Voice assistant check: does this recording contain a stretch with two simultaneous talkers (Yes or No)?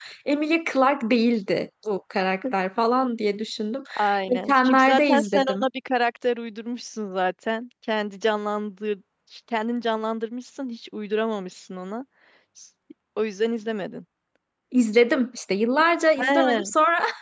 Yes